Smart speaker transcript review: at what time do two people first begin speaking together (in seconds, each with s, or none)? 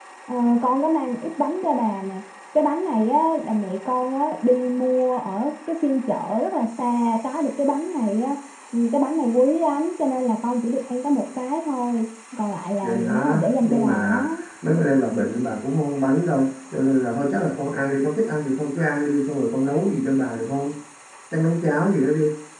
12.8 s